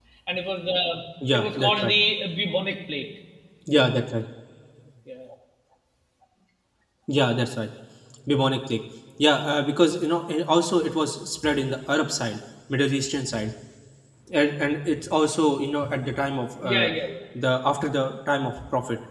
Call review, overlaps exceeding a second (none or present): none